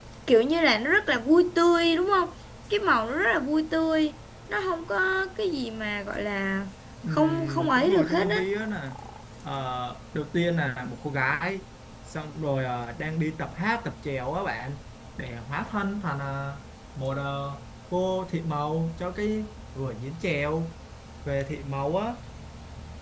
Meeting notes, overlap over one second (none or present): present